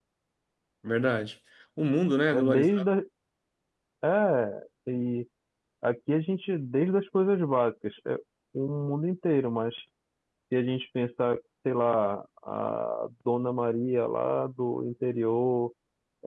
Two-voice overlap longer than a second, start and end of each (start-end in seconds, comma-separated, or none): none